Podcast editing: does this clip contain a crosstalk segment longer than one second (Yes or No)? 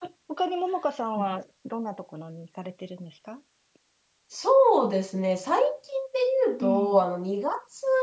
No